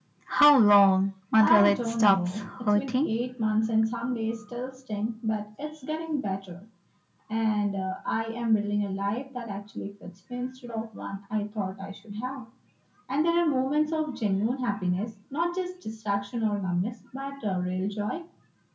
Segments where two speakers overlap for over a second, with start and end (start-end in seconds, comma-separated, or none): 1.4-3.1